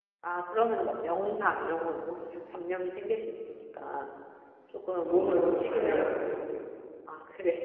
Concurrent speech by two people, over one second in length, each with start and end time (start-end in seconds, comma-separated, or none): 5.0-6.4